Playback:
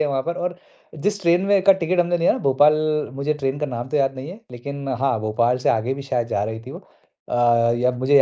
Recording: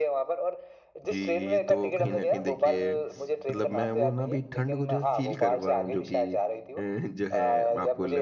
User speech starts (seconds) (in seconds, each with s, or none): 1.1 s